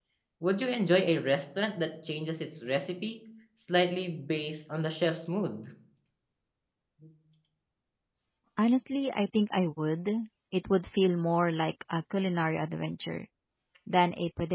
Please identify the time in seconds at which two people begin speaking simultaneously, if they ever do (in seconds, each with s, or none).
none